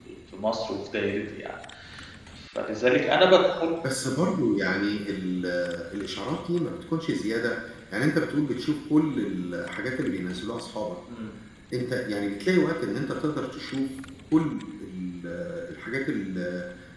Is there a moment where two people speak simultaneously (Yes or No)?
No